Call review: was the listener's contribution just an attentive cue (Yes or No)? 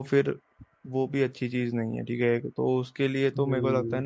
No